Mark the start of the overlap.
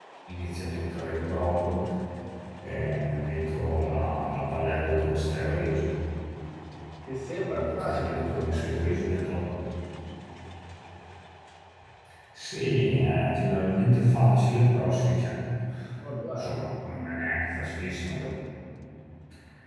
7.5 s

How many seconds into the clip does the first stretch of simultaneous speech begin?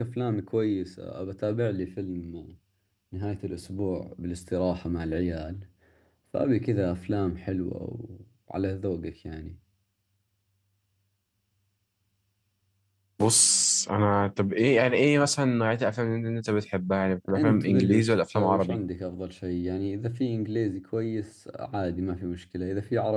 17.2 s

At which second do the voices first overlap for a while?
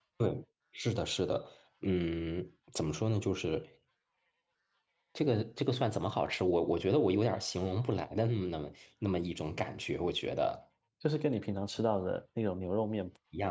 none

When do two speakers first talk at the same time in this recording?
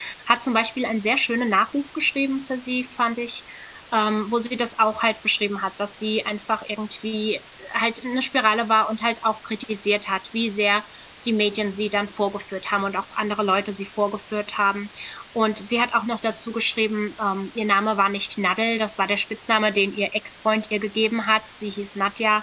none

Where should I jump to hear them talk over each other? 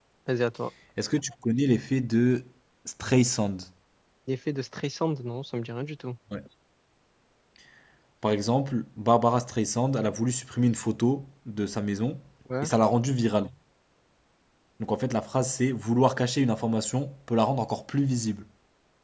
none

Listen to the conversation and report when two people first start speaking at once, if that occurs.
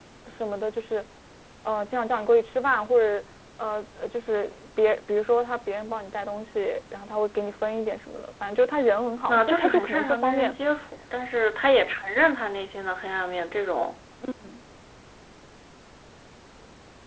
9.3 s

